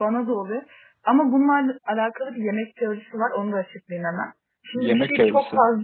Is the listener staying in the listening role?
Yes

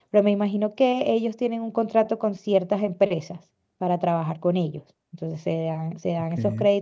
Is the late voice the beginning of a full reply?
No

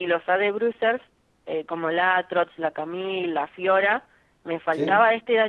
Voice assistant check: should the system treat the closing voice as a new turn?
No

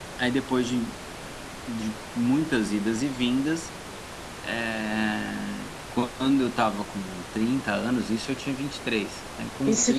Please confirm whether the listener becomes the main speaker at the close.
Yes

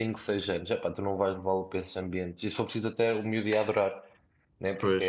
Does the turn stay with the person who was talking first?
Yes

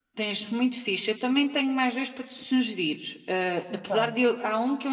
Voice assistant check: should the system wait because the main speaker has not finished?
Yes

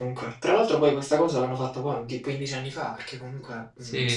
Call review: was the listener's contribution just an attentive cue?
No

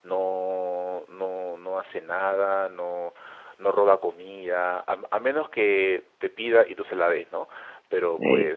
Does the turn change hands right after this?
No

